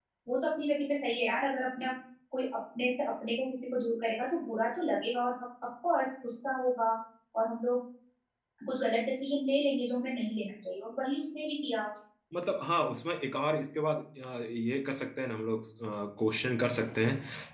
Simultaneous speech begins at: none

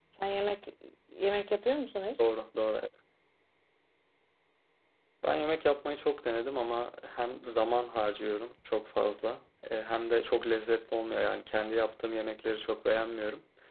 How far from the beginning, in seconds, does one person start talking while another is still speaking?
none

